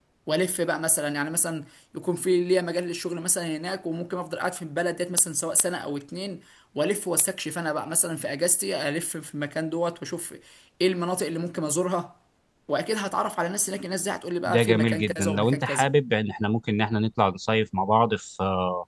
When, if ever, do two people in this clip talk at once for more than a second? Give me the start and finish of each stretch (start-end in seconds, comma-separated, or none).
14.4-15.9